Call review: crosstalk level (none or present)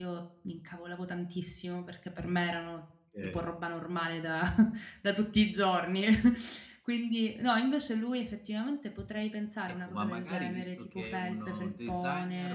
present